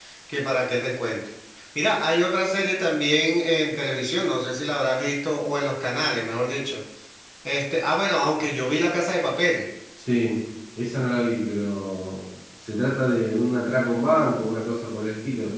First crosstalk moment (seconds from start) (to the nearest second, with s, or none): none